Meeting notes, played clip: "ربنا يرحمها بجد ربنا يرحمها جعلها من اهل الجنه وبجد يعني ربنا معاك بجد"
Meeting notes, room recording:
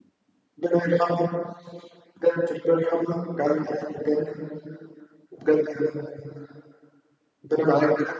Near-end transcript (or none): none